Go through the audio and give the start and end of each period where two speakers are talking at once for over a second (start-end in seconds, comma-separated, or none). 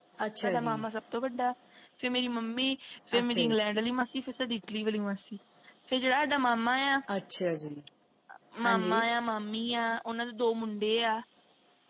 none